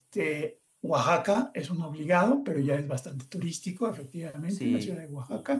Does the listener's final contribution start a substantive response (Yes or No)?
No